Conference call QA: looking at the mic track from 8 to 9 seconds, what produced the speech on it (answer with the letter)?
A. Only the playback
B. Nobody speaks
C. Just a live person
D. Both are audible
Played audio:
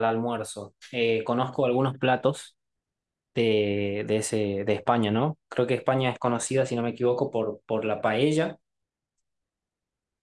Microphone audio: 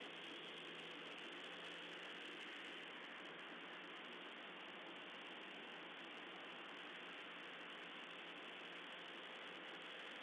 B